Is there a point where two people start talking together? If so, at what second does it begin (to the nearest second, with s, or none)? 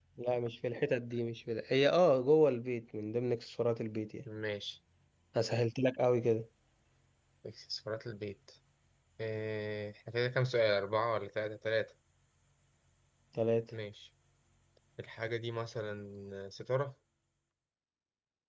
none